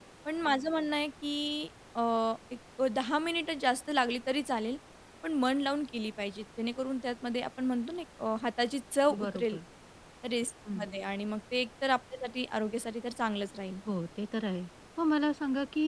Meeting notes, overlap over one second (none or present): none